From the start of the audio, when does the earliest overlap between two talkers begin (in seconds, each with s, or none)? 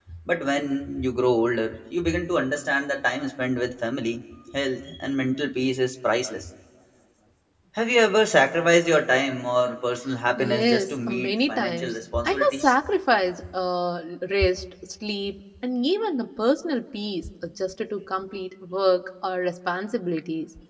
10.4 s